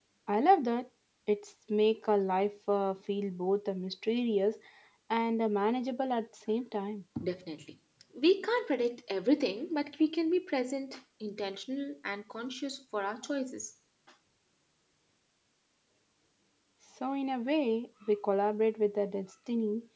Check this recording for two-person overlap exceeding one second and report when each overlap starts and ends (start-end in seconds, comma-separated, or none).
none